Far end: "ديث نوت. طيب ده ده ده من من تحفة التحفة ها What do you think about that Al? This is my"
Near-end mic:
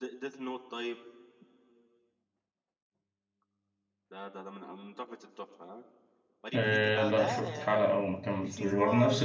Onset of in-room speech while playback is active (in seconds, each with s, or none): 6.5 s